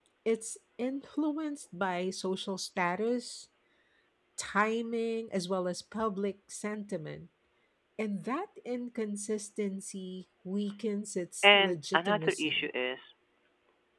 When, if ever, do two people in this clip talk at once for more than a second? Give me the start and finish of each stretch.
11.4-12.7

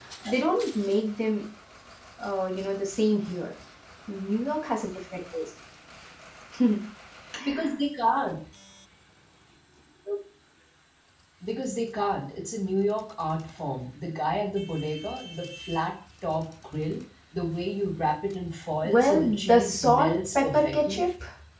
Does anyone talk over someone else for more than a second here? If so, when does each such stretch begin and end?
18.8-21.0

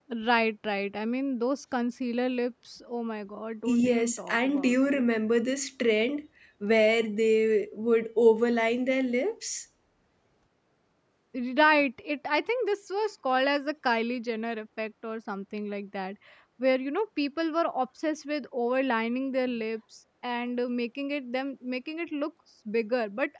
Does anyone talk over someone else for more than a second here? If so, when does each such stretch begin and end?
3.7-5.0

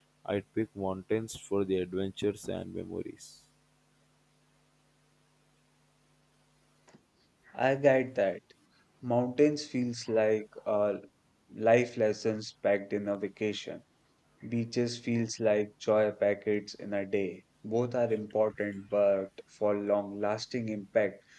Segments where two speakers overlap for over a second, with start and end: none

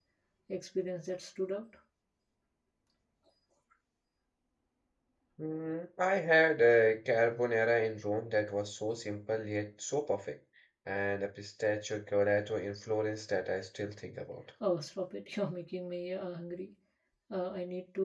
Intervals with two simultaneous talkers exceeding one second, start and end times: none

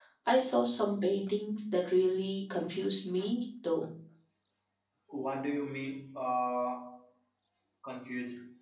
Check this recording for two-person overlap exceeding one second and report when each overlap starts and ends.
none

